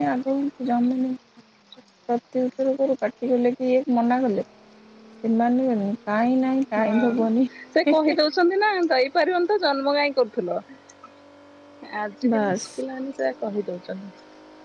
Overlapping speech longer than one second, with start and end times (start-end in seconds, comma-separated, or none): none